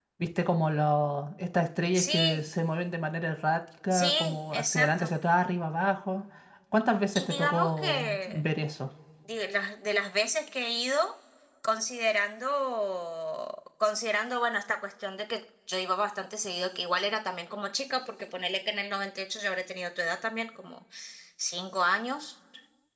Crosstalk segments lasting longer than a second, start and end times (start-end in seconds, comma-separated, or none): 3.9-5.1, 7.2-8.4